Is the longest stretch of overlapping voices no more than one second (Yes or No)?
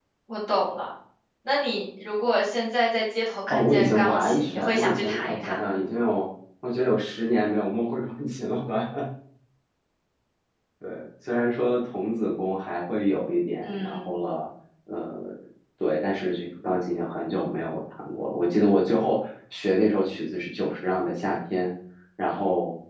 No